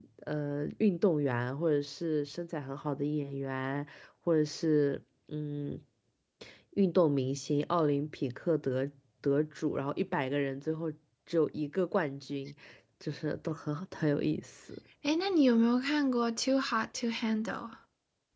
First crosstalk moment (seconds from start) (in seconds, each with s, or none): none